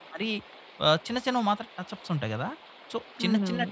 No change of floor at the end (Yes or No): Yes